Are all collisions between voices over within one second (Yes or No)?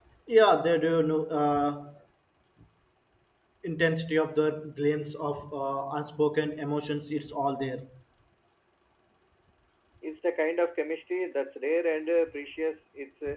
Yes